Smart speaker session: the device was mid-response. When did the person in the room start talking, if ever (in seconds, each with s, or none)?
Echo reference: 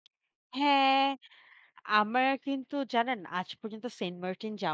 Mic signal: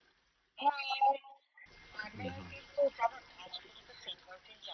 2.2 s